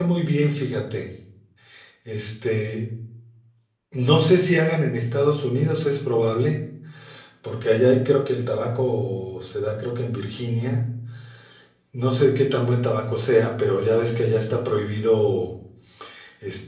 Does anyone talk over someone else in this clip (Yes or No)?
No